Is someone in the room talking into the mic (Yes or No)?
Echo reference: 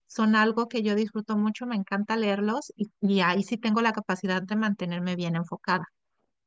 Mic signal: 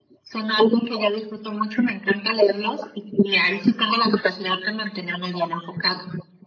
No